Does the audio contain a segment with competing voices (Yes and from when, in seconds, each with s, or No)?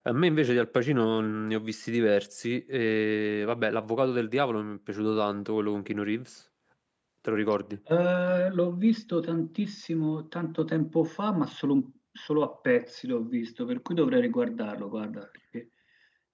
No